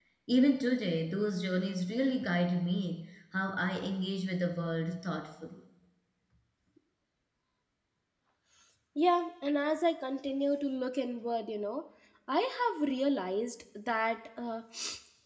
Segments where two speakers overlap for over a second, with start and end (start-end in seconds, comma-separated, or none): none